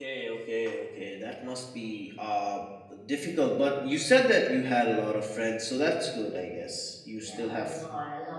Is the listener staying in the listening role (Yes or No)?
No